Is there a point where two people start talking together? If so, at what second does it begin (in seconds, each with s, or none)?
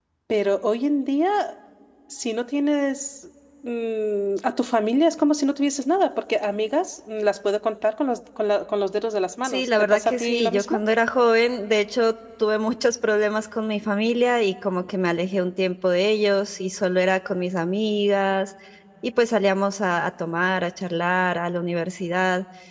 9.4 s